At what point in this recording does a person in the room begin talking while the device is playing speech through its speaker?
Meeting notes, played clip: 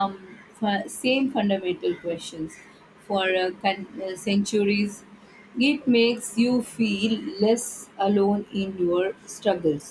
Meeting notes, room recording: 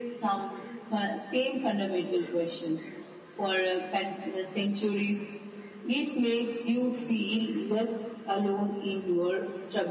none

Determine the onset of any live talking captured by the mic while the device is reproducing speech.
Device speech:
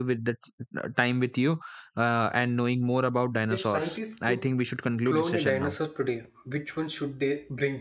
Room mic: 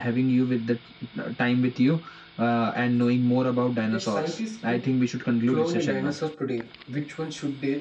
none

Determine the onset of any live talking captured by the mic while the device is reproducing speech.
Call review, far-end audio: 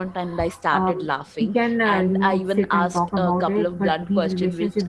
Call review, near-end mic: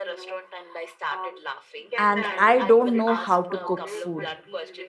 2.0 s

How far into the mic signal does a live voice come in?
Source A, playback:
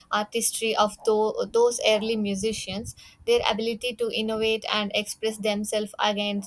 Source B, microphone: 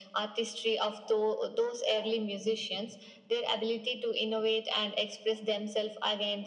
none

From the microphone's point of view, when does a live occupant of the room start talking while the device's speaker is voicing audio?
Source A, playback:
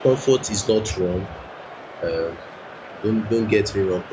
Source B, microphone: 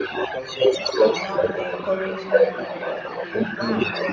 1.0 s

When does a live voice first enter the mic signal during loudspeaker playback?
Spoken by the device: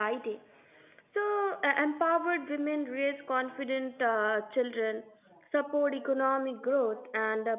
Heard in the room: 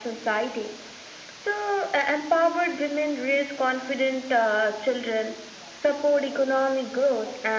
none

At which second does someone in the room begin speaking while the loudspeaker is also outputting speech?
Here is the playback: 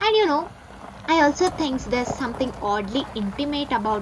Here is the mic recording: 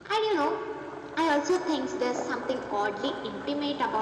none

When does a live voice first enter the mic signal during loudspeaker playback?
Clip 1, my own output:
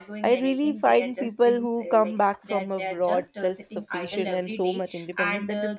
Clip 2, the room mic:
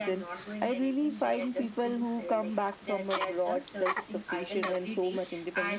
none

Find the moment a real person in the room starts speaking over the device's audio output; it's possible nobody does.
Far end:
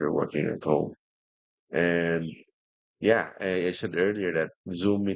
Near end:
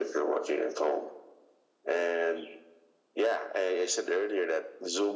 none

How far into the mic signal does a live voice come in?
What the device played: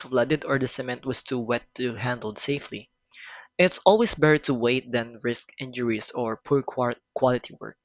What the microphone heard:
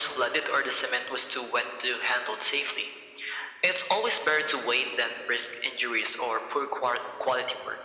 none

